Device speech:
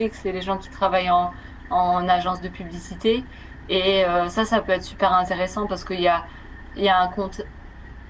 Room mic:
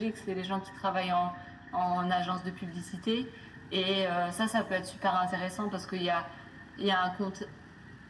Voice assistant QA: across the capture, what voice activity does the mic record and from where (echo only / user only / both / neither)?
echo only